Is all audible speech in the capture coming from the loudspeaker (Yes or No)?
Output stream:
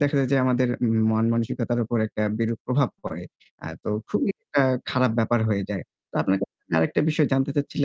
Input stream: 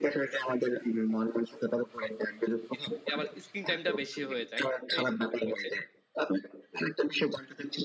No